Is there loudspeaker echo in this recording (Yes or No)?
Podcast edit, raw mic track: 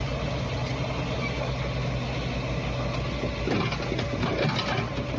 No